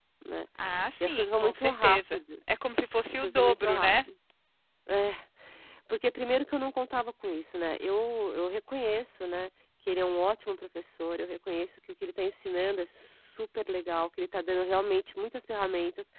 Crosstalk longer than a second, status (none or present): present